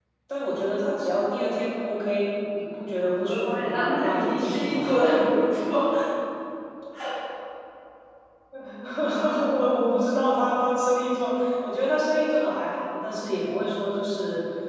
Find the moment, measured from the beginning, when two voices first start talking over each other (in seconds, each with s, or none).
3.0 s